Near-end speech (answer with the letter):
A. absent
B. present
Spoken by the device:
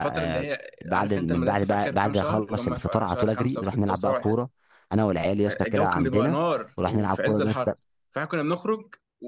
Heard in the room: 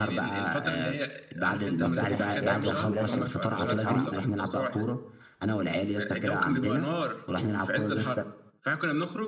B